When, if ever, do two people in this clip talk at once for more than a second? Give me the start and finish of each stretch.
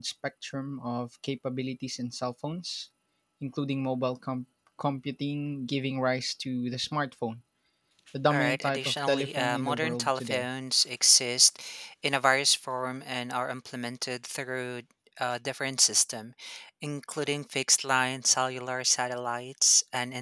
8.3-10.5

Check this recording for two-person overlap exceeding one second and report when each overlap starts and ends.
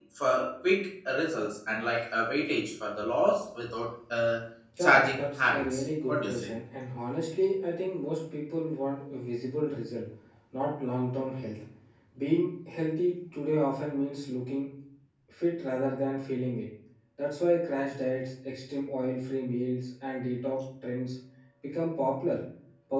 4.8-6.5

